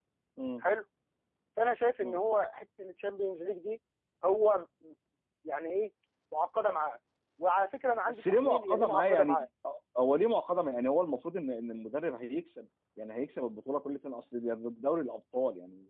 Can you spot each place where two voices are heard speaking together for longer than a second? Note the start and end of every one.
8.1-9.4

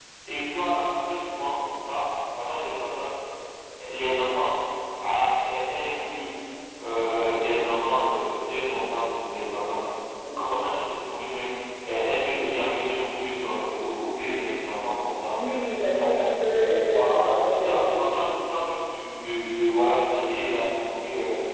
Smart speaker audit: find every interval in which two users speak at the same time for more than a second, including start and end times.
16.9-18.4

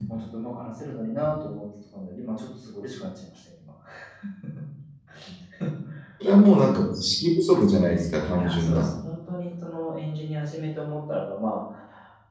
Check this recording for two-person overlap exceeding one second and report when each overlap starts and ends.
none

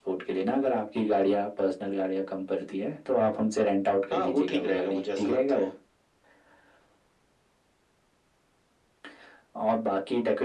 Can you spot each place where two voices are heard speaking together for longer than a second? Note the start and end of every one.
4.1-5.7

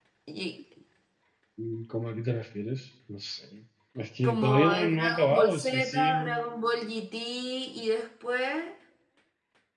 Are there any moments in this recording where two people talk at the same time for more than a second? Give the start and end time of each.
4.2-6.5

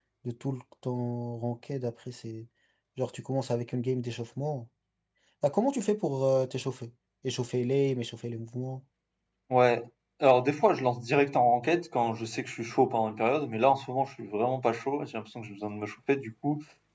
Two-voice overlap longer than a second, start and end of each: none

